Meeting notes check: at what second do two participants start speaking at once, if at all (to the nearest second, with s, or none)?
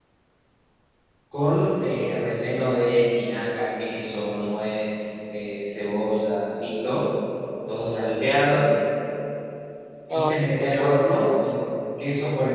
10 s